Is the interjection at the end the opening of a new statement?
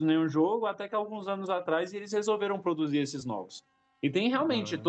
No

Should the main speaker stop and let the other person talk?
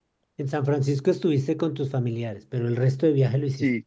Yes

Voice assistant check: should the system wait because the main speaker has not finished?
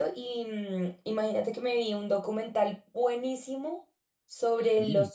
Yes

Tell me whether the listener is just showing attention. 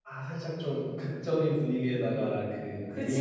Yes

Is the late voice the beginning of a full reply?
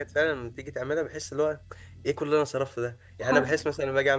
No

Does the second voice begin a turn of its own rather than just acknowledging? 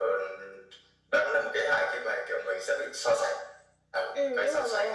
Yes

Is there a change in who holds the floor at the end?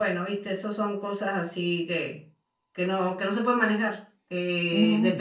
No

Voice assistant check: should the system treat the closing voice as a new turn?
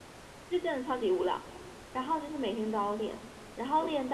No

